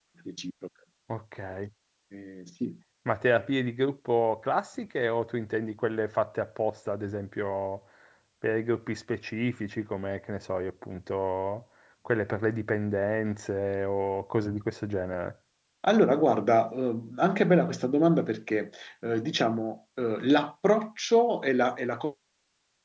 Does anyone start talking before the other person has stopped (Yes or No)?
No